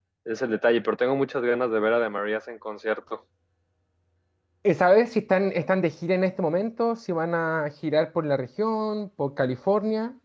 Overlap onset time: none

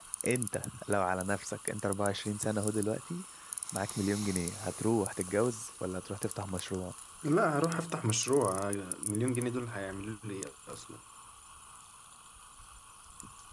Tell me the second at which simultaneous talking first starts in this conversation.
none

